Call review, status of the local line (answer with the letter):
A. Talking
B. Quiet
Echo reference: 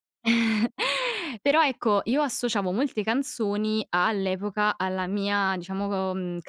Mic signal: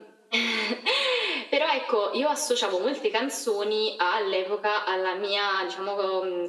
B